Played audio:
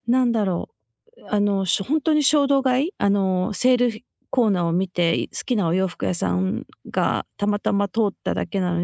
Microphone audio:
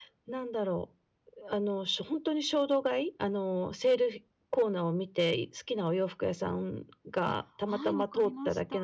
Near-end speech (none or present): present